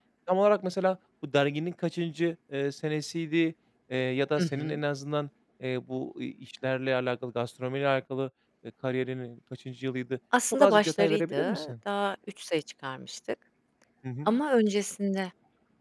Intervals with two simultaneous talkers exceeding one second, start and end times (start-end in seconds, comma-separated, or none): 10.5-11.7